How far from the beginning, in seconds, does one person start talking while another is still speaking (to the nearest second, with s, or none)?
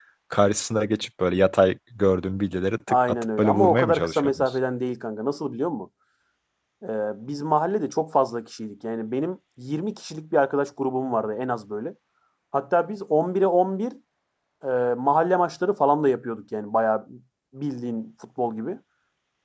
3 s